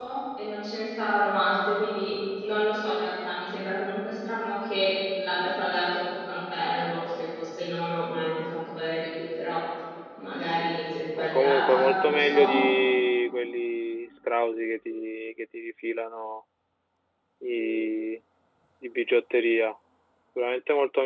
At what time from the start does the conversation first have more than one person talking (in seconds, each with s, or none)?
11.2 s